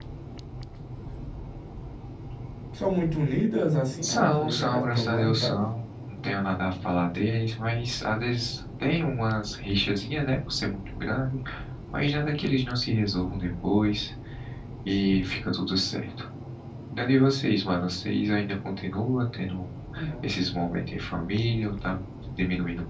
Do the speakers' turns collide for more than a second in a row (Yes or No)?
Yes